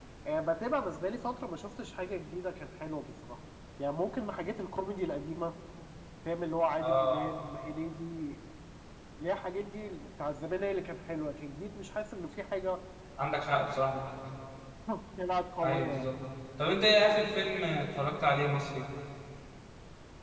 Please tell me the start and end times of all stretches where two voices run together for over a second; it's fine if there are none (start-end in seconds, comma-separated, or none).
none